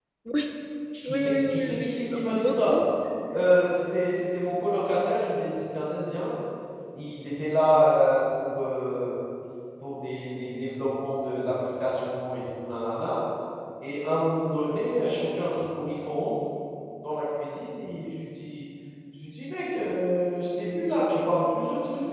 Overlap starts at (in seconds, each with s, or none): 1.0 s